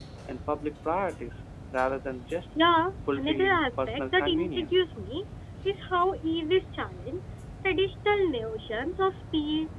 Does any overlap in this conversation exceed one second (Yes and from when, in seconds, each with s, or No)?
Yes, from 3.1 s